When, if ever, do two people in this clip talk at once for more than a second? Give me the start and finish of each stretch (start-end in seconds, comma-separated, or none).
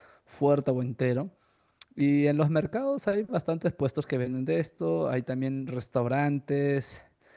none